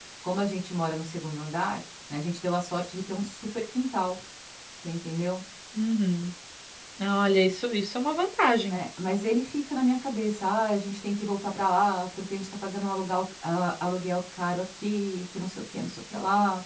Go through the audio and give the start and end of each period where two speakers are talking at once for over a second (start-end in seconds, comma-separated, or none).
none